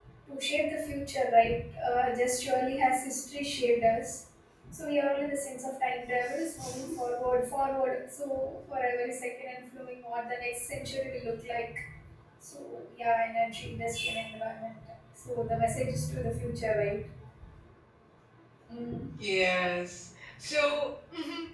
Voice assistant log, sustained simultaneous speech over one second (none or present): none